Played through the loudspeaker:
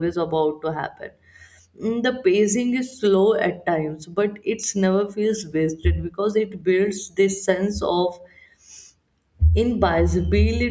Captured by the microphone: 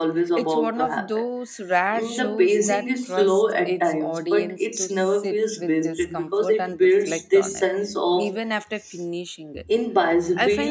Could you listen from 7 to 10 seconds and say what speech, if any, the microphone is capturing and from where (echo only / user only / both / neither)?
both